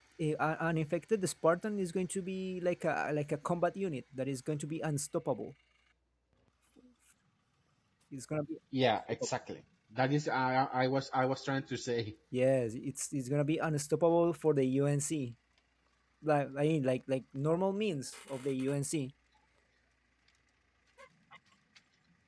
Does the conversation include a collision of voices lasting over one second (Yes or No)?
No